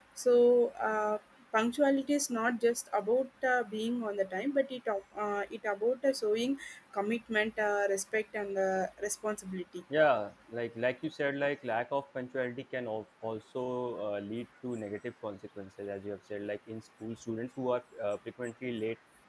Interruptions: none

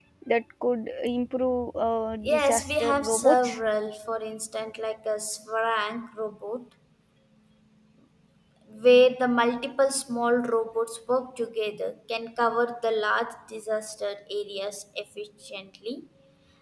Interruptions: present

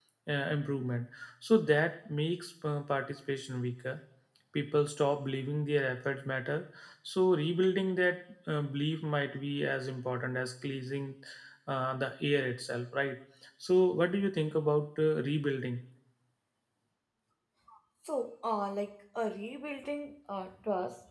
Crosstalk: none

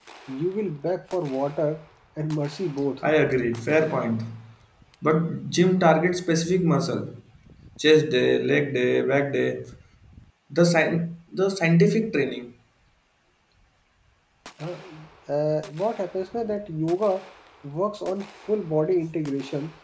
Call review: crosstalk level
none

